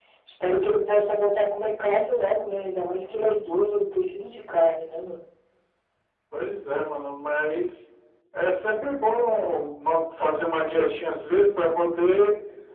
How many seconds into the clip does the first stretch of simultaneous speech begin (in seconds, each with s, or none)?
none